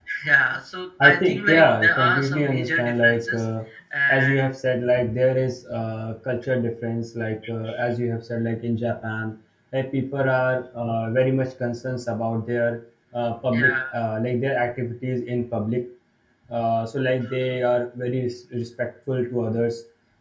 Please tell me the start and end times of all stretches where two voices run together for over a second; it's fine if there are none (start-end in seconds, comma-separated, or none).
1.0-3.4